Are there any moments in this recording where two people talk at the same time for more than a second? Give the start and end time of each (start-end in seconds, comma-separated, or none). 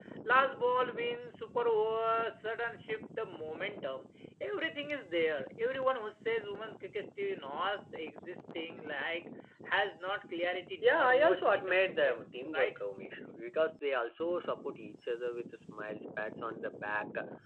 10.8-12.7